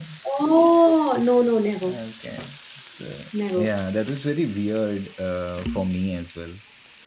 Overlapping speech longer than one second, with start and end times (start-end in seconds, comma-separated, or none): none